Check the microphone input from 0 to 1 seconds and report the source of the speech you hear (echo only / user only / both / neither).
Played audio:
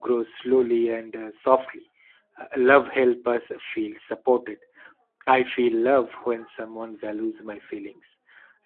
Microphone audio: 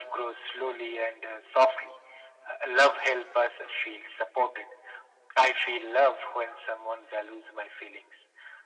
echo only